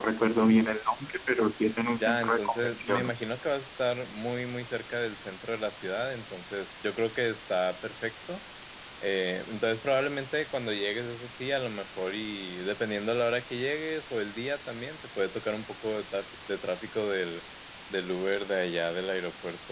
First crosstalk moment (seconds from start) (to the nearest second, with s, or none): 2 s